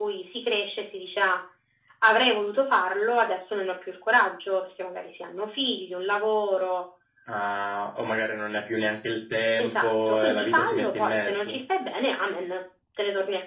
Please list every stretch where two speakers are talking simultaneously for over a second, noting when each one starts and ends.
9.6-11.6

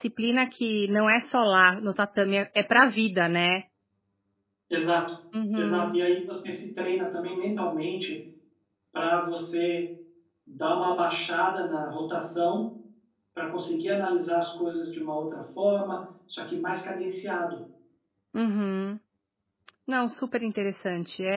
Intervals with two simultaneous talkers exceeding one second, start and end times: none

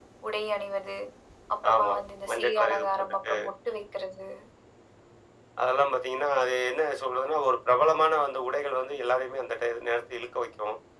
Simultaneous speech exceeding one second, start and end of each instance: 1.7-3.3

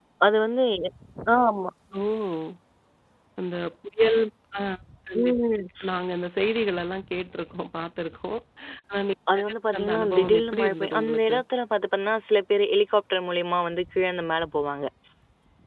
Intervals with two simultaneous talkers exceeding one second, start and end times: 9.3-11.3

